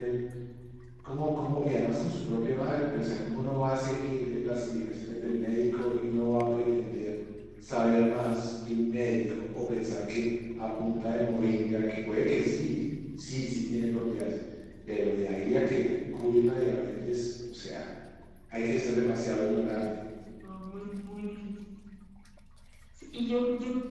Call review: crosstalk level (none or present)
none